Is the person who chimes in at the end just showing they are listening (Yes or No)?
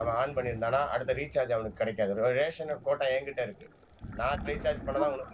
No